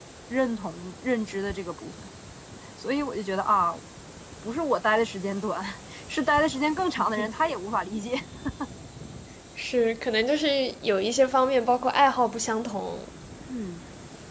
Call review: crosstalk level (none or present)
none